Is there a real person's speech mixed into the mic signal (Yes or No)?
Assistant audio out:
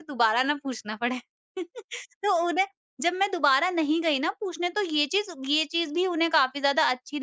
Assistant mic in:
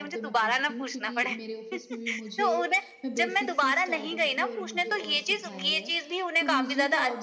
Yes